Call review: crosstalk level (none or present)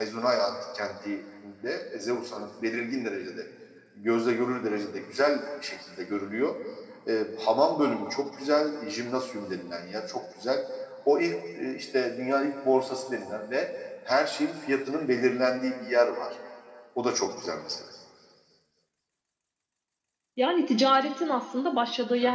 none